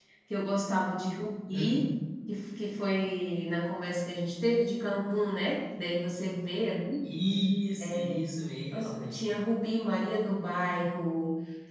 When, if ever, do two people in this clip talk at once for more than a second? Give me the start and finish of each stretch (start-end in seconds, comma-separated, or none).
none